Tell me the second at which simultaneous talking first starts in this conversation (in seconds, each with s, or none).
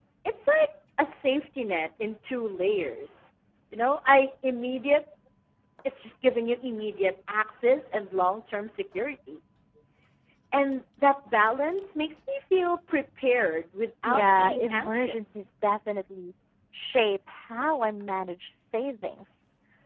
14.0 s